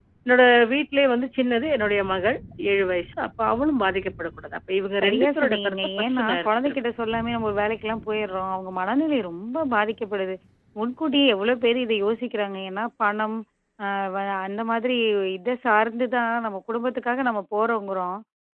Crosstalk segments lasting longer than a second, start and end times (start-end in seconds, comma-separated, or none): 5.0-6.8